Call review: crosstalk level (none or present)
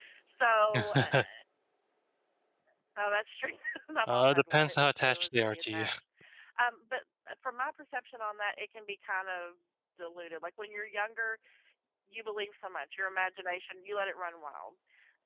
present